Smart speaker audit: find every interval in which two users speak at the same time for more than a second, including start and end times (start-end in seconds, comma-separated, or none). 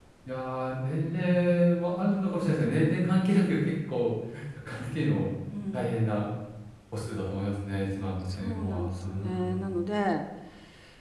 8.4-9.6